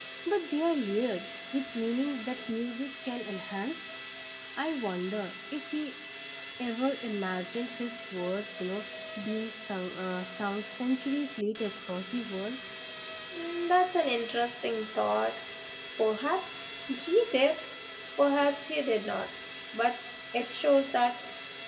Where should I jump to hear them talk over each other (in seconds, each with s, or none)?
none